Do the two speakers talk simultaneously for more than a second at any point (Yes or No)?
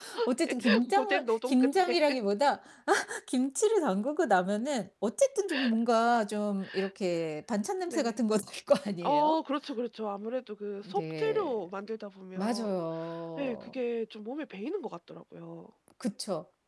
Yes